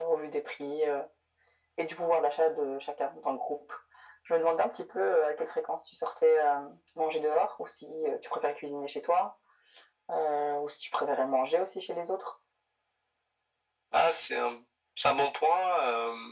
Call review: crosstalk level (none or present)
none